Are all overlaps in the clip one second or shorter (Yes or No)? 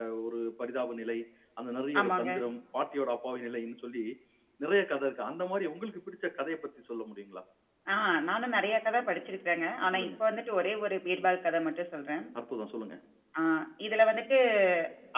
Yes